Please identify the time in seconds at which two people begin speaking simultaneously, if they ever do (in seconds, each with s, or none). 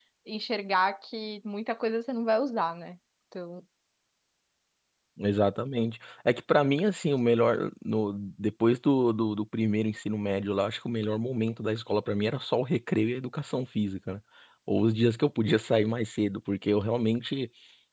none